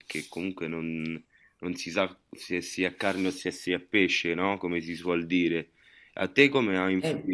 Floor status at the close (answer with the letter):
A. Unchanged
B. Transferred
A